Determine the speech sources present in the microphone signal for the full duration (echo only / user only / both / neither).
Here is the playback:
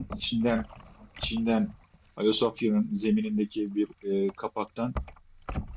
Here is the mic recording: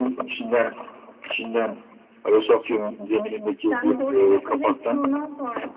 both